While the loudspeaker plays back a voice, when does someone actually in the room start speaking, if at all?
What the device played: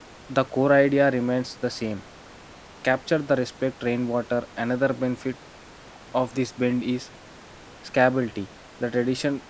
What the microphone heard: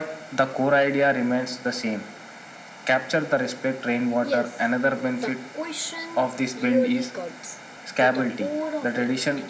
4.2 s

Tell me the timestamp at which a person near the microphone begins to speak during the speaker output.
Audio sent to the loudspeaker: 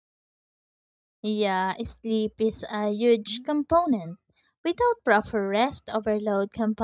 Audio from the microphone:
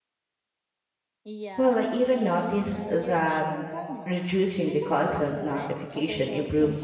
1.5 s

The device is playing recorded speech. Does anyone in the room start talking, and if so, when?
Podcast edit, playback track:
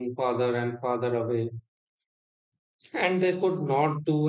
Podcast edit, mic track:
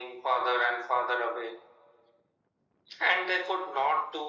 none

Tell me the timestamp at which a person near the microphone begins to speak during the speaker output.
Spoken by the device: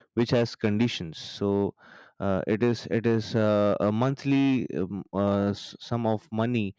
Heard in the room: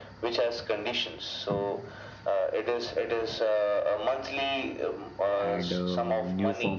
5.4 s

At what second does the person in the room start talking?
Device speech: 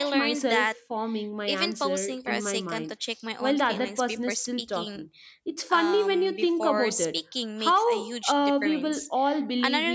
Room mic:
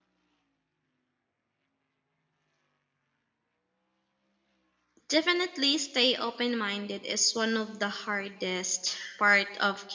5.0 s

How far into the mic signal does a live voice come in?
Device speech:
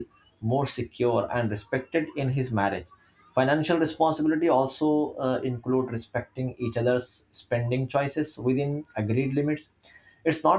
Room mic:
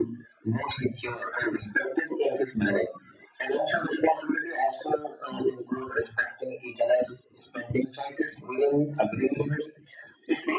none

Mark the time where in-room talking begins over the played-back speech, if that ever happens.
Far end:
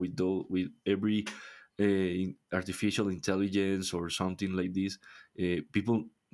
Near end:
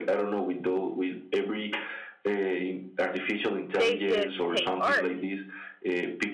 3.8 s

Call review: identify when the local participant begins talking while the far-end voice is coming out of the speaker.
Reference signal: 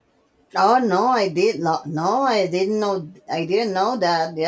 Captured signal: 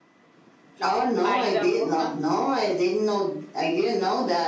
1.2 s

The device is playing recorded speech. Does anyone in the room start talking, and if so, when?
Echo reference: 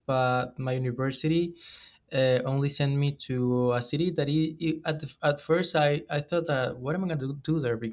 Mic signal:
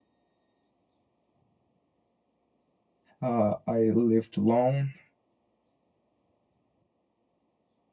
3.2 s

